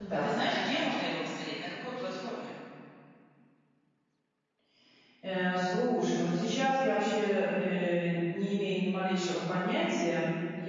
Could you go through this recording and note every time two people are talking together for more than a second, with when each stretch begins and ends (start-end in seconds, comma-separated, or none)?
none